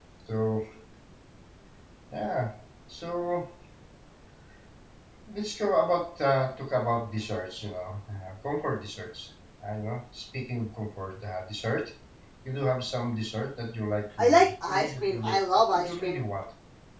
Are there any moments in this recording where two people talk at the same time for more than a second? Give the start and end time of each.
14.2-16.2

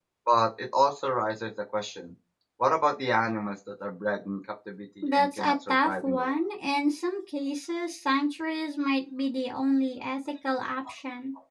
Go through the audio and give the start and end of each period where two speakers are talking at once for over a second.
5.0-6.4

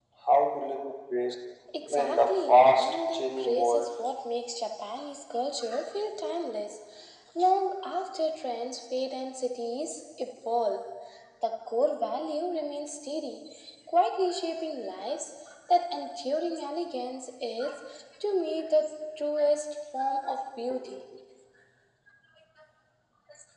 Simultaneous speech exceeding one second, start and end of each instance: 1.9-3.9

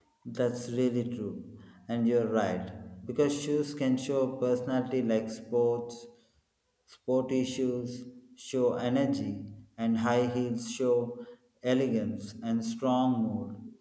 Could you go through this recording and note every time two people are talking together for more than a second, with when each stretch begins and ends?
none

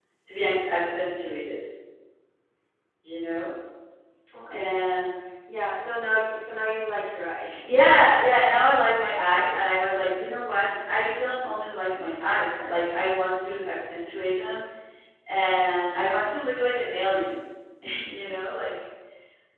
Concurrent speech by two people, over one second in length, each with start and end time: none

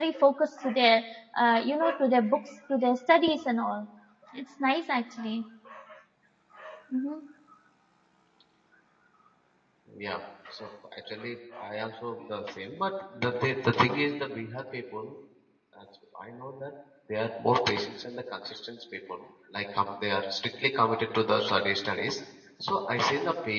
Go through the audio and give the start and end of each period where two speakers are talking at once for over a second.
none

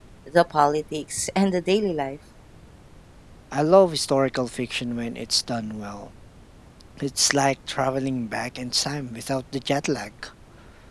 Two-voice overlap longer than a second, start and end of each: none

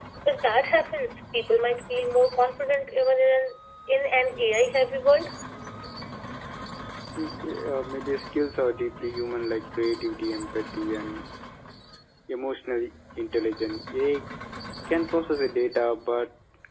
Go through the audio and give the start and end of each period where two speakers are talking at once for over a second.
none

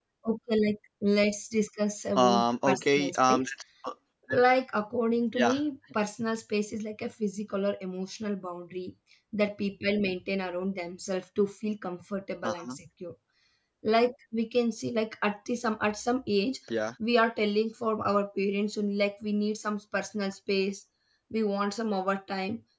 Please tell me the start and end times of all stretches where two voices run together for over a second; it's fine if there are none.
2.2-3.5

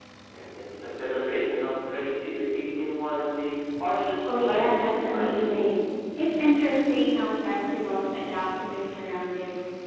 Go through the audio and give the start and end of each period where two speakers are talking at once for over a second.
4.2-5.7

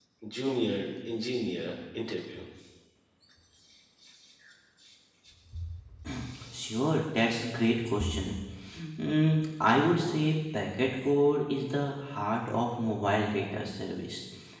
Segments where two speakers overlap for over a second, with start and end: none

